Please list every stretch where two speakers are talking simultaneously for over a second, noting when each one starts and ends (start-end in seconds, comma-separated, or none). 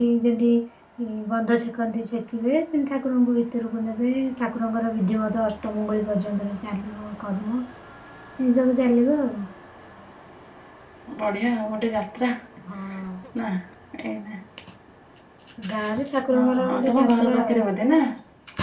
16.3-17.6